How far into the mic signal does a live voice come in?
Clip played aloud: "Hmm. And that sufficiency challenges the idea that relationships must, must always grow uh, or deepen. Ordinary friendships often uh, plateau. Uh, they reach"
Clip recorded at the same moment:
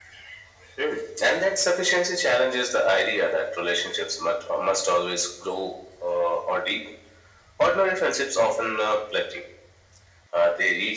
none

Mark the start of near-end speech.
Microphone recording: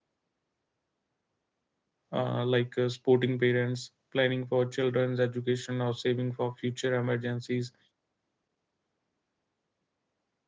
2.1 s

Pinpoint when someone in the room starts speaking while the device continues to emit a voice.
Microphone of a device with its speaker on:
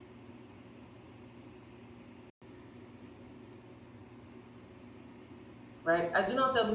5.8 s

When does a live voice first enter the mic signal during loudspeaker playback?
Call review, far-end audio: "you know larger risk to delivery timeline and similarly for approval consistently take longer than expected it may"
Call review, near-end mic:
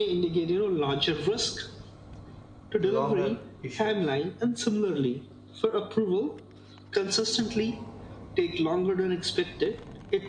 2.8 s

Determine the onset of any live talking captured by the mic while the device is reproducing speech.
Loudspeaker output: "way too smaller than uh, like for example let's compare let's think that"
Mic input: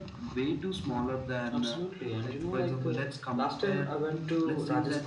1.5 s

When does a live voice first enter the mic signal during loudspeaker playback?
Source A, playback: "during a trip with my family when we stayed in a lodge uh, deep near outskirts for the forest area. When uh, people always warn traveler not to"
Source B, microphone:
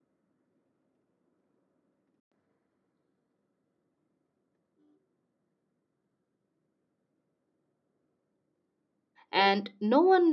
9.3 s

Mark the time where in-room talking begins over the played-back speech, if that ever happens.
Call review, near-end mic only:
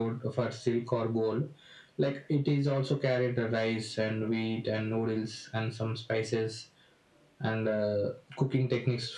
none

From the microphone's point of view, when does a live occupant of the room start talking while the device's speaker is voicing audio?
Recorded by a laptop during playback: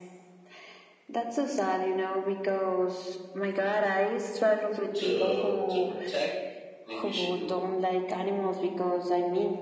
4.9 s

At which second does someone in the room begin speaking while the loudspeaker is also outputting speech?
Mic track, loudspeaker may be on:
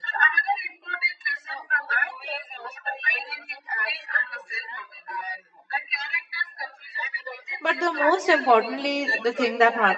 7.6 s

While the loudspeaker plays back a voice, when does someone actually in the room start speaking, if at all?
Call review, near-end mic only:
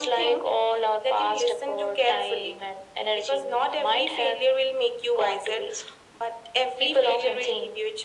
none

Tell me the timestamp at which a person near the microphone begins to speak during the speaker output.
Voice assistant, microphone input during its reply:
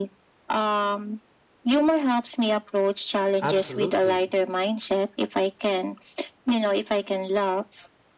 3.4 s

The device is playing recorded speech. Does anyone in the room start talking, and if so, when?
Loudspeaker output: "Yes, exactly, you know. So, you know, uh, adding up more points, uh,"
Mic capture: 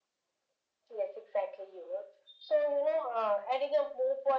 none

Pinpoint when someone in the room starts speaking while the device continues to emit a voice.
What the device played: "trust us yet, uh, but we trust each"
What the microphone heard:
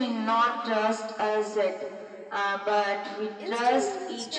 3.4 s

